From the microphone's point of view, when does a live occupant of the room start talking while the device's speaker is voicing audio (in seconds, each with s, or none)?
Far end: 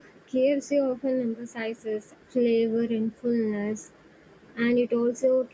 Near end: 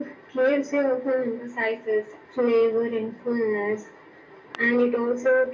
none